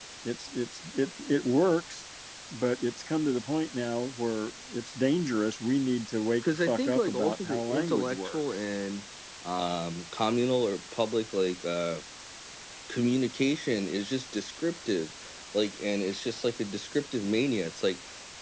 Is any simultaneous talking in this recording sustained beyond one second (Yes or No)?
Yes